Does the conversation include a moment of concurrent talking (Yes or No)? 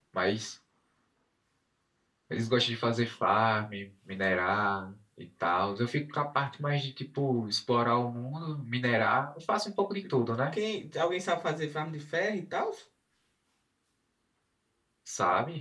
No